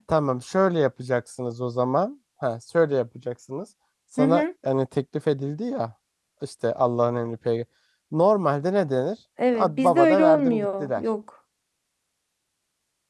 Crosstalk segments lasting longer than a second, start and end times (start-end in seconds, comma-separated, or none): 9.5-11.0